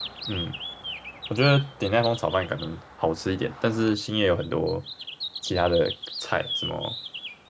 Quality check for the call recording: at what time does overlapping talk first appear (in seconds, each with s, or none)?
none